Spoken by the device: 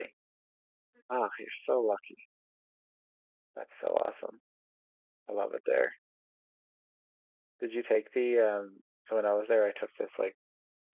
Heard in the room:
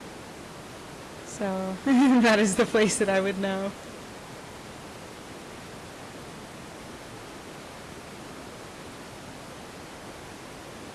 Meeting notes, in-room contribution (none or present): present